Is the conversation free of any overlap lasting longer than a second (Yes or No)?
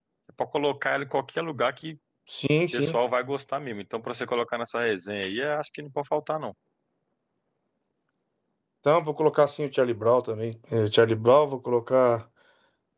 Yes